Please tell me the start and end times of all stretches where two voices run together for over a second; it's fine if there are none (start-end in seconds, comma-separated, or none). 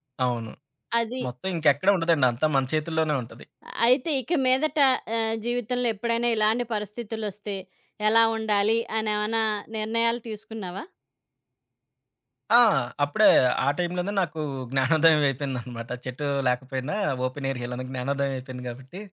none